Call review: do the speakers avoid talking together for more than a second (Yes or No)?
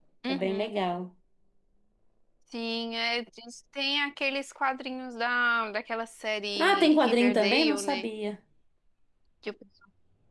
No